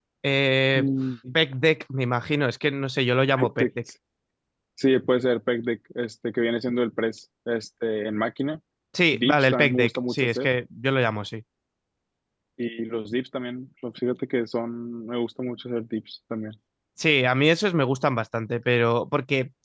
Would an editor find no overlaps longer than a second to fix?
No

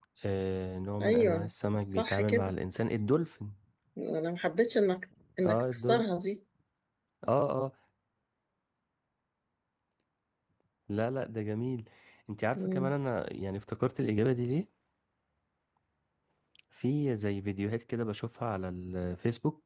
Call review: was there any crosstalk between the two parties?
Yes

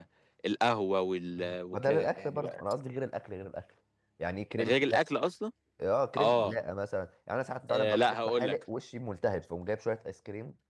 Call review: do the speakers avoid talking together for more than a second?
No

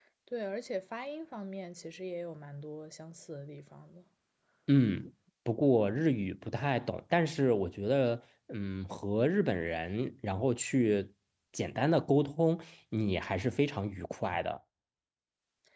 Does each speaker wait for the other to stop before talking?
Yes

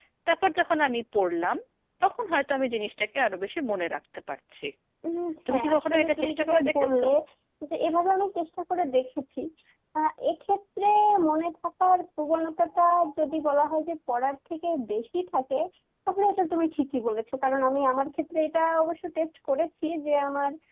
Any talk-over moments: Yes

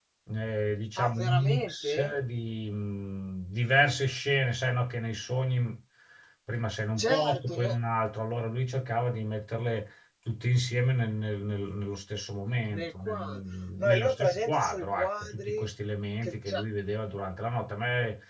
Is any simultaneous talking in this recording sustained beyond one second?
Yes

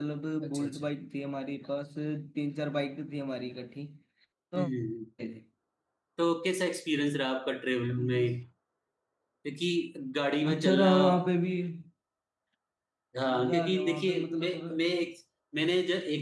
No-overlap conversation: No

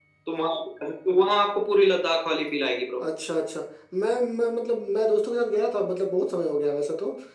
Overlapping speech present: No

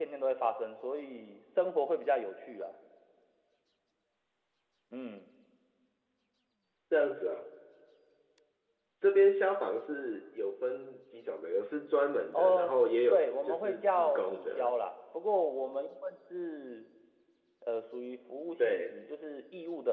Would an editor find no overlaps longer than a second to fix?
No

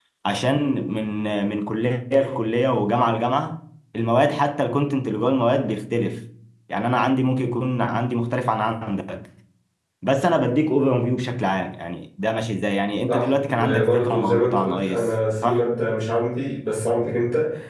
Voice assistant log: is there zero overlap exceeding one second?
No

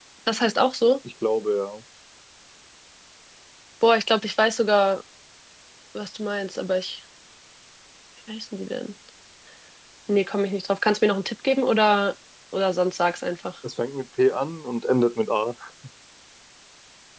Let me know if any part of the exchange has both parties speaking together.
No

